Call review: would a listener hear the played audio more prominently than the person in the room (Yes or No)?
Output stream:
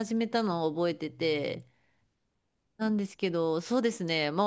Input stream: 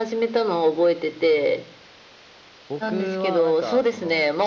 Yes